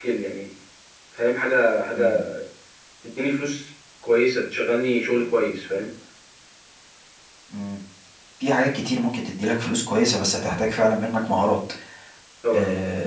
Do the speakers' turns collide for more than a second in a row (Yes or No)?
No